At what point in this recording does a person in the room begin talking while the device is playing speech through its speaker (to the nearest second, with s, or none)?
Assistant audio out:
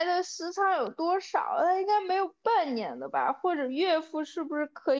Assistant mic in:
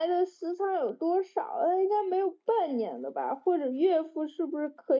none